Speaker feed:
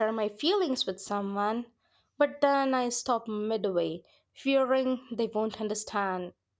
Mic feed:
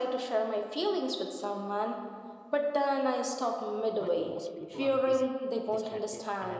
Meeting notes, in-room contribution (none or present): present